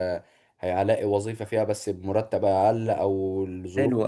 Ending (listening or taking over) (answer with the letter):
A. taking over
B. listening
A